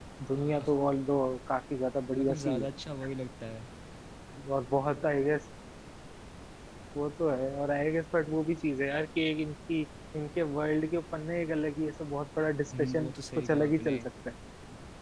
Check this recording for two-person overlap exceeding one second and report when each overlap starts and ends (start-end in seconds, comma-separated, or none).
12.8-14.0